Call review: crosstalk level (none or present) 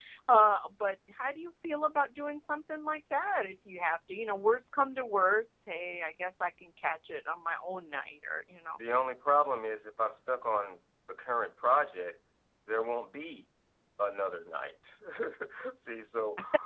none